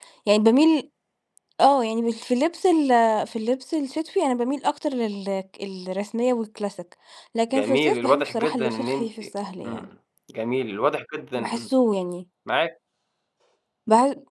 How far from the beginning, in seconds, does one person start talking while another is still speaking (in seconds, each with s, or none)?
7.5 s